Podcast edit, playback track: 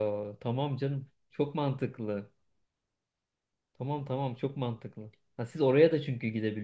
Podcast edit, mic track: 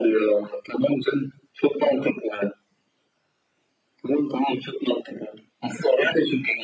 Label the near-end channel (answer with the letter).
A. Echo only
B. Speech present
A